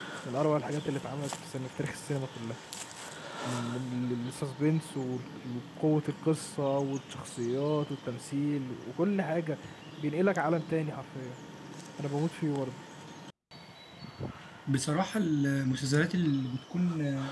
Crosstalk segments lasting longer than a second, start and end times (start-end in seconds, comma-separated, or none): none